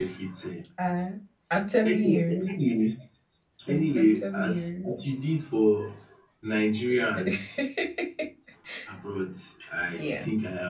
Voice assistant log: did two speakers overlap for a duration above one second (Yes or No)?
Yes